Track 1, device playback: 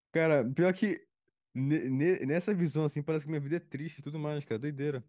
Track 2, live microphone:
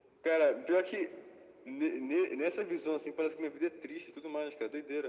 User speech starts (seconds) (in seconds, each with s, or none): none